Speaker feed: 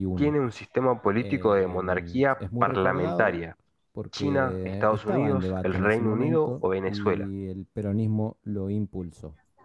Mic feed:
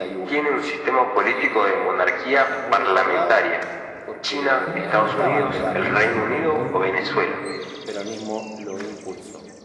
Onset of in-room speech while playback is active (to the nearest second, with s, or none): 5 s